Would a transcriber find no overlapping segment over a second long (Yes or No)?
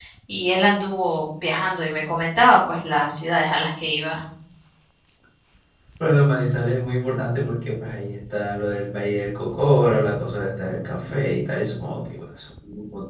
Yes